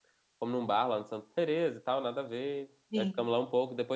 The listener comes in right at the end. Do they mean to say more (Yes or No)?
No